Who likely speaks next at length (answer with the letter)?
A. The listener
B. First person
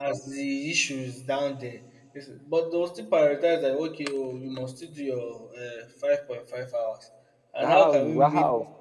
A